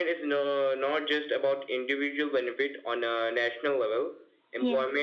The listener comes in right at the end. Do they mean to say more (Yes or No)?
No